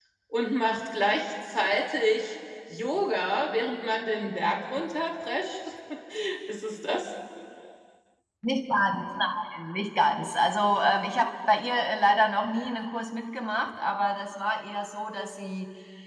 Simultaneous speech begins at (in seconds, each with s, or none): none